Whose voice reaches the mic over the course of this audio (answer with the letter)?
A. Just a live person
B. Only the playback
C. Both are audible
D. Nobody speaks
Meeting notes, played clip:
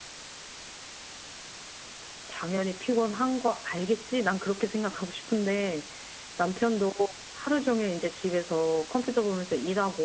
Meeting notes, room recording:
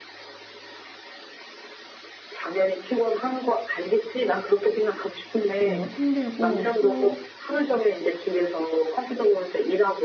C